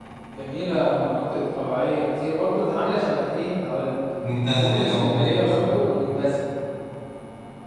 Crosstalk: present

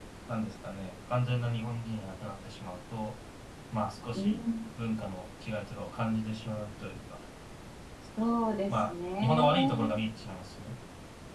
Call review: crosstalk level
present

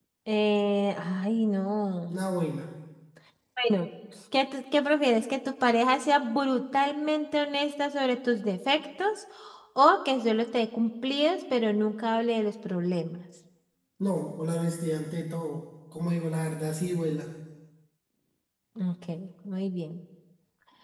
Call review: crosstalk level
none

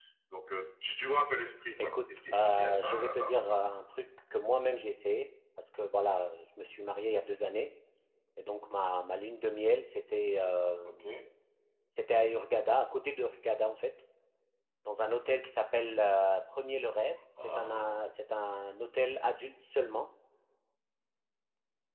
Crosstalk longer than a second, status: present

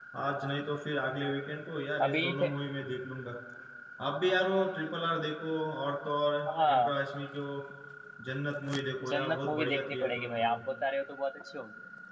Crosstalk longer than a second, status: present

